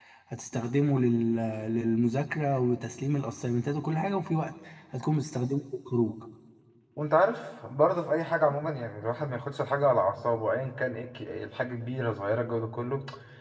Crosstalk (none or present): none